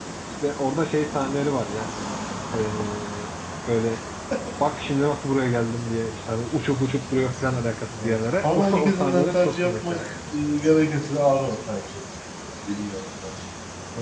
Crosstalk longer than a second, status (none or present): present